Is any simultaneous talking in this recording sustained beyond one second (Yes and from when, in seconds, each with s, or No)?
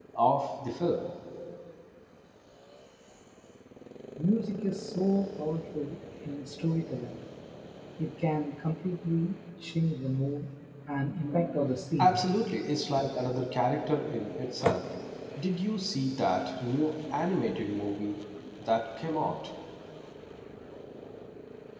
No